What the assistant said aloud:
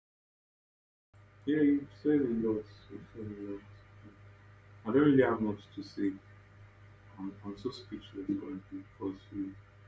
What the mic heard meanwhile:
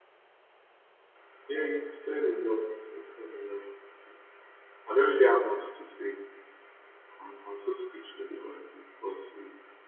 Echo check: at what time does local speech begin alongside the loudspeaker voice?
none

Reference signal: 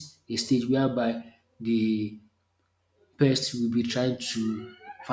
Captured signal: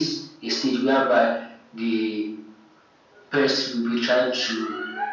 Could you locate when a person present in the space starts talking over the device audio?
none

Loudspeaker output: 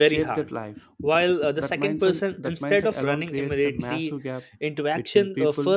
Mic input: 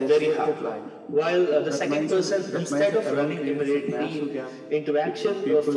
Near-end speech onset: none

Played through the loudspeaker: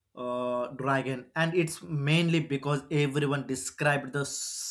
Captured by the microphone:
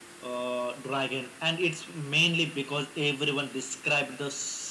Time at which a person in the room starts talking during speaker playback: none

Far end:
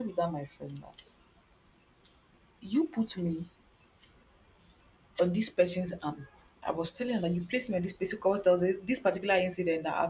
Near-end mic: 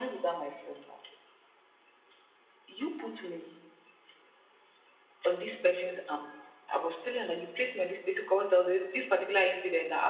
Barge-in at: none

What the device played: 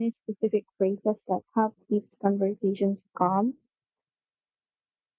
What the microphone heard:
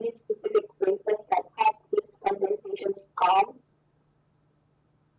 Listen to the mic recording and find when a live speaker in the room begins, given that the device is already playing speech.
none

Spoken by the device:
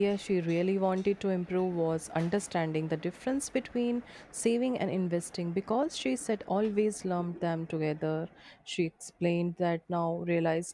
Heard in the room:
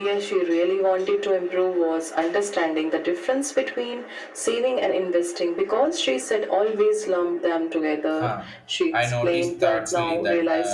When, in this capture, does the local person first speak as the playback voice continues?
8.2 s

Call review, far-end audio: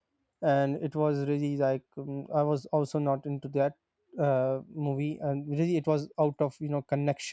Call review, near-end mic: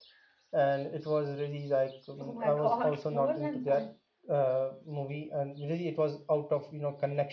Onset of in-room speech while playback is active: 2.2 s

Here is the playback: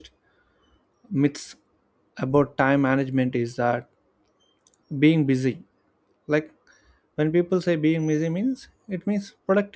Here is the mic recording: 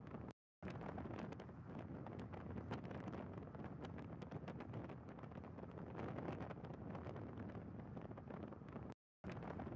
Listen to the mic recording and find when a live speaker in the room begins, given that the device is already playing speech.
none

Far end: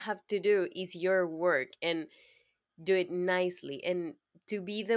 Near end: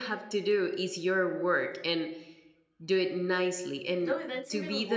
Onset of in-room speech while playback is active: 4.0 s

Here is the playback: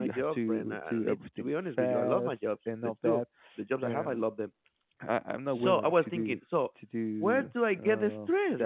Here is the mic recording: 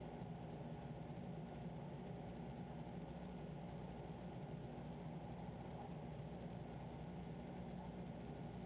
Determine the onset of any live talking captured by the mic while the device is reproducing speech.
none

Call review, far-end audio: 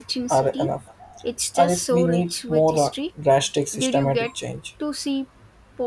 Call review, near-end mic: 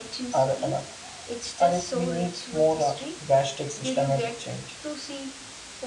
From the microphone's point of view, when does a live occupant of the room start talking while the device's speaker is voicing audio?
none

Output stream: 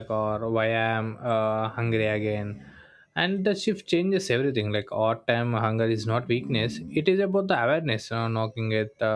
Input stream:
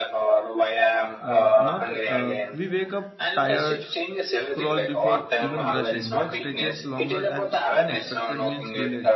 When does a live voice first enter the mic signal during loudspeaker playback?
1.2 s

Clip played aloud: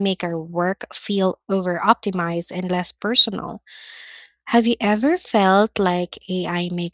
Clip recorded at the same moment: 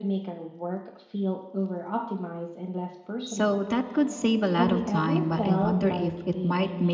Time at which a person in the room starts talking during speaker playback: 3.2 s

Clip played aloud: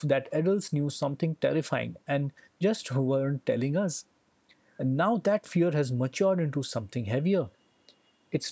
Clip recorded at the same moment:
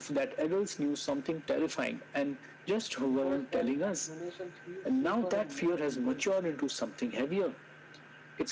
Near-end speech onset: 3.1 s

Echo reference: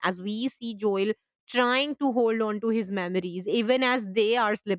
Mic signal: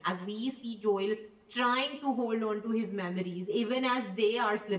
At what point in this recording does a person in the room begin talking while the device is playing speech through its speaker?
none

